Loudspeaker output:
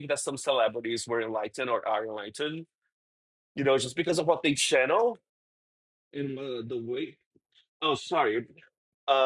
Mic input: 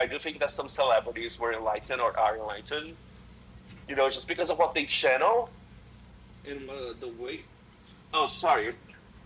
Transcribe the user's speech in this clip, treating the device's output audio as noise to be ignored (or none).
none